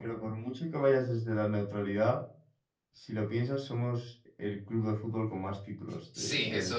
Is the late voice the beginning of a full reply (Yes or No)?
Yes